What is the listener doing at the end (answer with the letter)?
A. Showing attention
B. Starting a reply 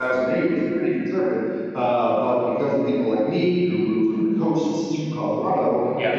A